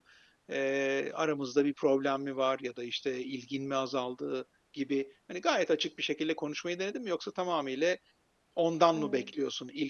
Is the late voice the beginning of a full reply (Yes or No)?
No